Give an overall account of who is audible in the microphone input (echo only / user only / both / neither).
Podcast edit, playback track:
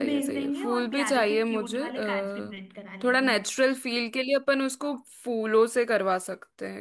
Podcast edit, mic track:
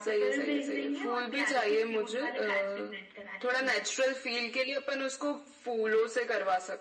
echo only